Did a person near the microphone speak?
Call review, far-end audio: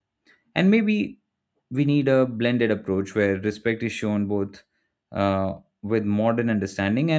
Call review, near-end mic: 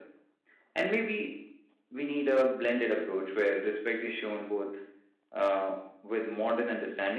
No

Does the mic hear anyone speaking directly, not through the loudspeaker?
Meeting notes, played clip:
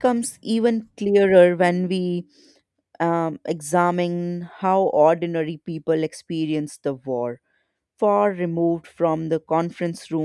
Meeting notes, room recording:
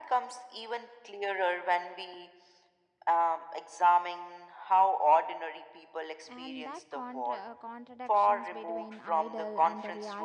Yes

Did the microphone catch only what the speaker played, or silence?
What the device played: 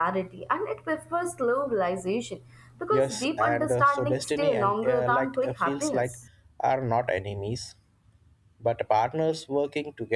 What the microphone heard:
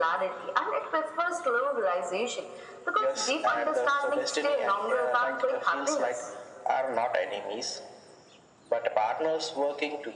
Yes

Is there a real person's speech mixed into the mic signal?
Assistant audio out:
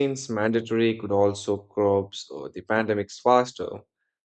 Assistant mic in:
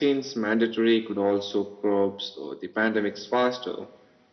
No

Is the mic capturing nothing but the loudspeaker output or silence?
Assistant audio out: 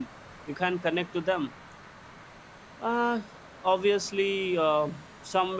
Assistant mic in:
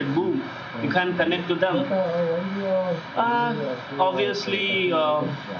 No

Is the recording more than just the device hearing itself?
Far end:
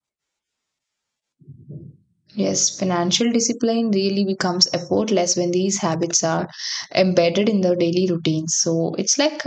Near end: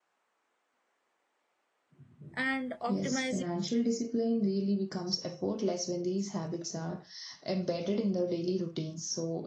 Yes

